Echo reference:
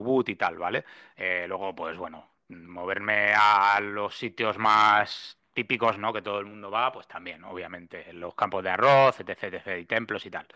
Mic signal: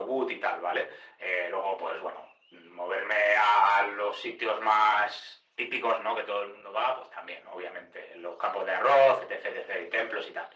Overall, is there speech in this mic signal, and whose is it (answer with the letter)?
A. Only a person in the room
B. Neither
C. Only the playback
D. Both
C